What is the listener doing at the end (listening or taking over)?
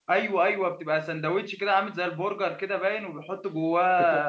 taking over